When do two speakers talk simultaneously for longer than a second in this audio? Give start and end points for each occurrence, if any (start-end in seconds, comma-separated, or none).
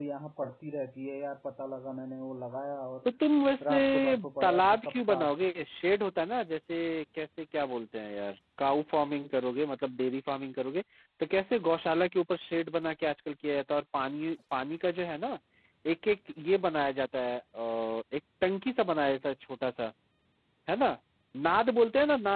3.6-5.3